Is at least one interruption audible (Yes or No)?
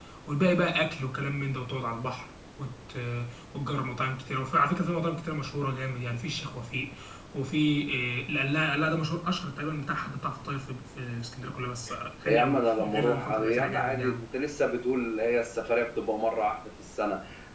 Yes